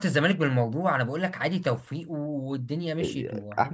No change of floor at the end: No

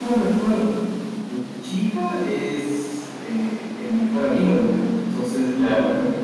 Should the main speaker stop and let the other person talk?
No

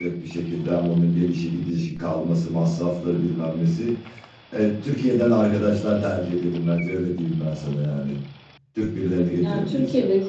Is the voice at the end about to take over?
Yes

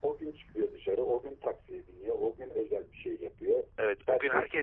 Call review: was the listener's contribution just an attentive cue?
No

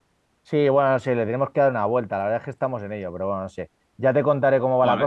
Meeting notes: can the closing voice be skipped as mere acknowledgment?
Yes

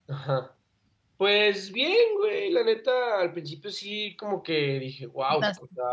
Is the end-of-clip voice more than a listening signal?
No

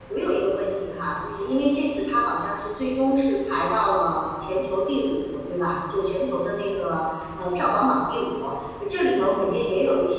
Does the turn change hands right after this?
No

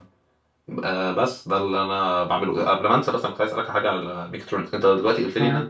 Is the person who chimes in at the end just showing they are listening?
Yes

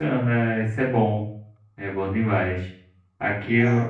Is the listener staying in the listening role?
Yes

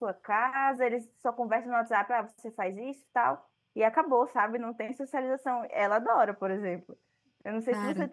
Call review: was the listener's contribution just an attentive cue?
Yes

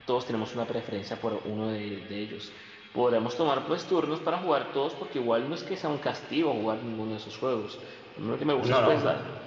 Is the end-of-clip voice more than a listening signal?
No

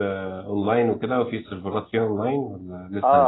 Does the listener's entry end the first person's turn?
Yes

